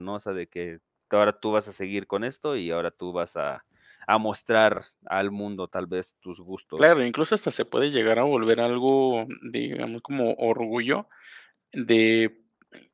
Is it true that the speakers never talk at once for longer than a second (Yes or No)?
Yes